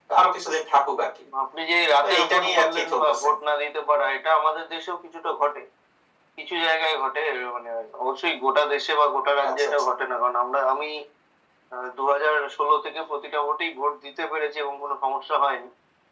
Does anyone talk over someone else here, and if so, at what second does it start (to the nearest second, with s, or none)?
2 s